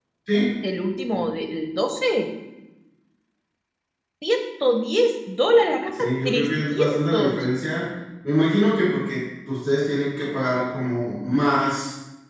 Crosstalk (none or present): present